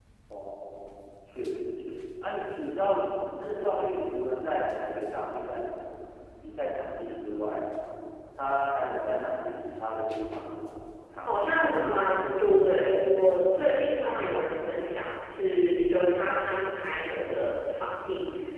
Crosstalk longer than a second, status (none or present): none